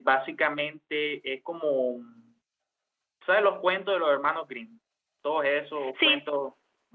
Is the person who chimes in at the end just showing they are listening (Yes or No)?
Yes